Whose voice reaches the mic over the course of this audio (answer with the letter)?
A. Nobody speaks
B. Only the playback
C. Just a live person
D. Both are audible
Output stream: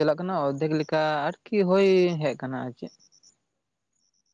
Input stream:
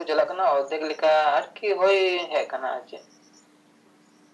B